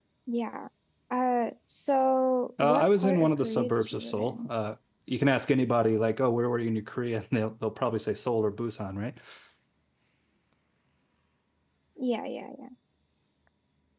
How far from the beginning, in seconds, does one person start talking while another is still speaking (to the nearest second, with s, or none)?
3 s